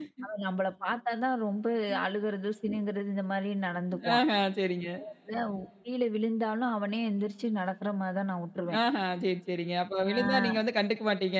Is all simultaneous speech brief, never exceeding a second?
Yes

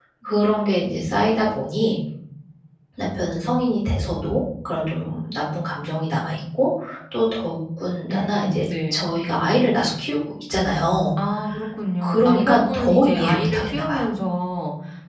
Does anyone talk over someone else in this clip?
Yes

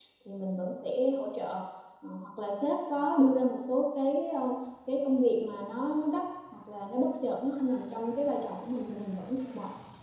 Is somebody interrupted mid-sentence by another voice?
No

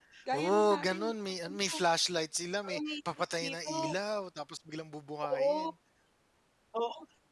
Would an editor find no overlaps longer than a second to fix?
No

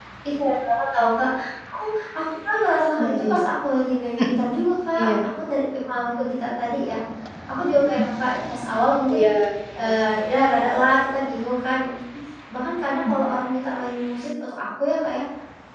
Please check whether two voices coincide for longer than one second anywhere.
No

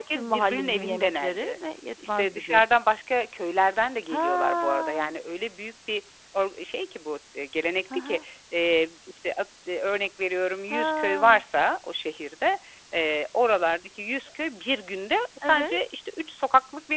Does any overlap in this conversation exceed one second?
Yes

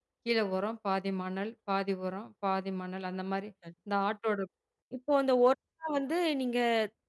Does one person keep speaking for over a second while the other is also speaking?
No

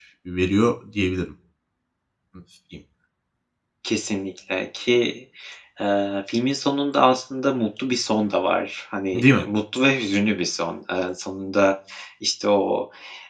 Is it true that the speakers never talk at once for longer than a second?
Yes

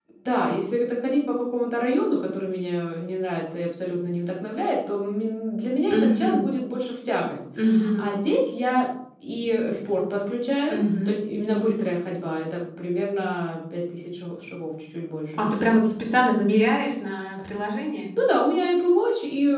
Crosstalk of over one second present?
No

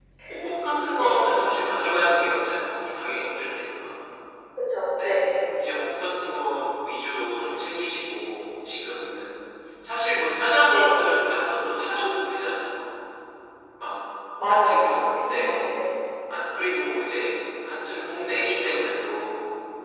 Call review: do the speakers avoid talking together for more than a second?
No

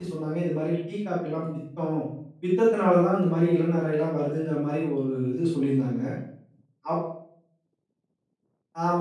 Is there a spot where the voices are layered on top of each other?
No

